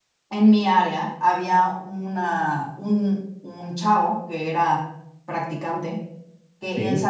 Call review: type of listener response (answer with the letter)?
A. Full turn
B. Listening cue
B